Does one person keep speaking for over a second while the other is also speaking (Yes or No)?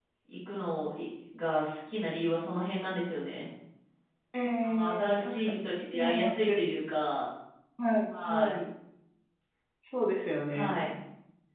Yes